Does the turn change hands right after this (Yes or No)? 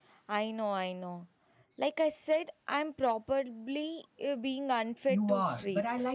Yes